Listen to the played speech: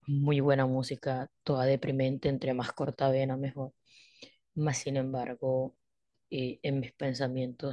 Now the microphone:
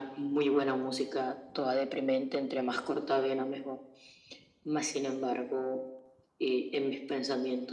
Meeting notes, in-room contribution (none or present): none